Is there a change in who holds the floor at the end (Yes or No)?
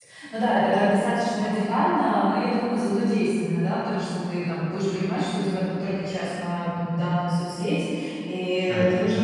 No